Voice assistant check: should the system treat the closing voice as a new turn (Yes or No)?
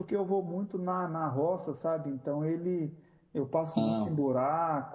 No